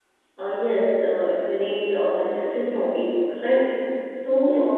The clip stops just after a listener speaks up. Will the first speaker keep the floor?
Yes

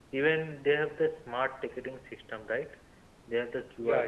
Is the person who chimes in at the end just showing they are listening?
Yes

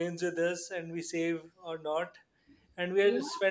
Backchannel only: Yes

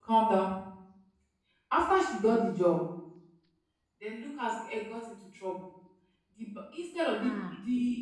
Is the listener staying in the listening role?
Yes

